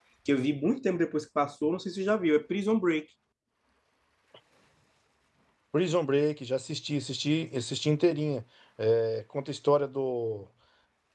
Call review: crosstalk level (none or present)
none